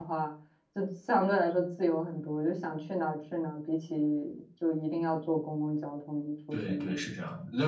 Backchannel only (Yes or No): No